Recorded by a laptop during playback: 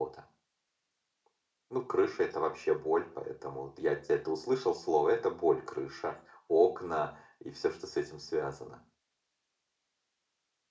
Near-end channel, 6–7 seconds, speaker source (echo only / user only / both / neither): user only